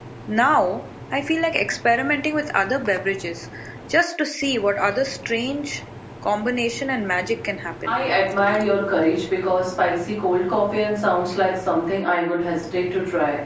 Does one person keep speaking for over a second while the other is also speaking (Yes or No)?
No